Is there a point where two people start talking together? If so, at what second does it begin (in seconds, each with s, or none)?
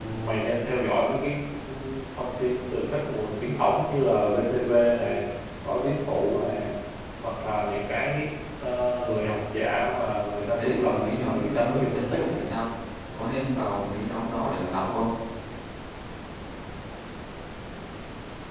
10.6 s